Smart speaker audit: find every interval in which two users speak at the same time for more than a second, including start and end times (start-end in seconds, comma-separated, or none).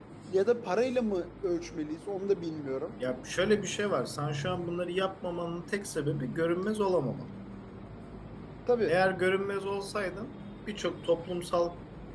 none